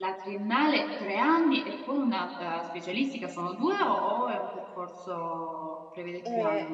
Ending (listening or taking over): taking over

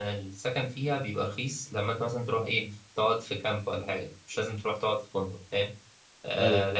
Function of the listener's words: listening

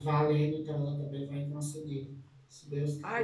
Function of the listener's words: taking over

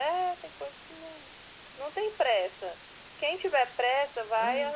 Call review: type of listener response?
listening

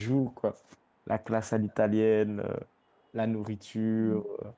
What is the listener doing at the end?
taking over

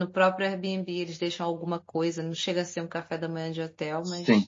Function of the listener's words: taking over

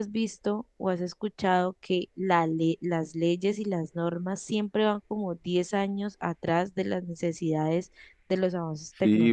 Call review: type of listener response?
taking over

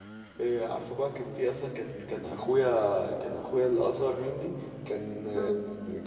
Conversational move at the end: listening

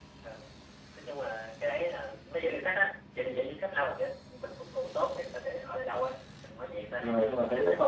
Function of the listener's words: taking over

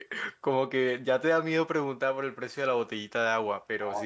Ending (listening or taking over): taking over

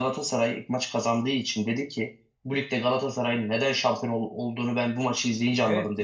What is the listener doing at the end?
taking over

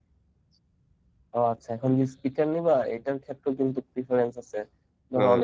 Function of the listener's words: listening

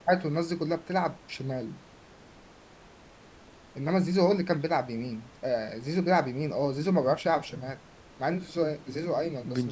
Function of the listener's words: taking over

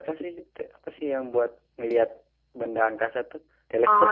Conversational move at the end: taking over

